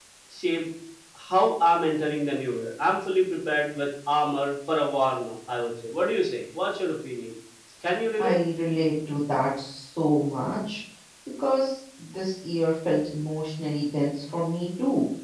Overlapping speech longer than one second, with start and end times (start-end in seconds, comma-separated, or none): none